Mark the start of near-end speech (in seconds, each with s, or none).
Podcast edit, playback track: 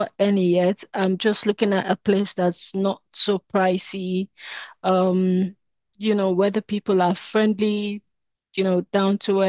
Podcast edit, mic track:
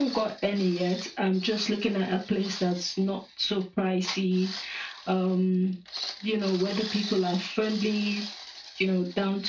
none